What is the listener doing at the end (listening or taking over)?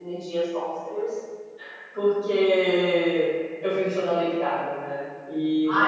taking over